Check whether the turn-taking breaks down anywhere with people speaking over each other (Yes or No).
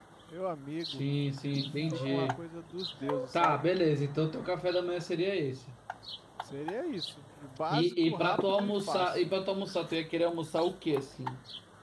Yes